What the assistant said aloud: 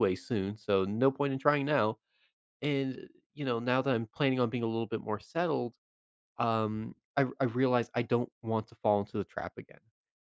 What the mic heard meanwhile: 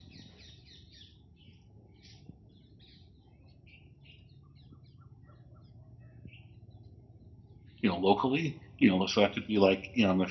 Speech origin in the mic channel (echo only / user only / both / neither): user only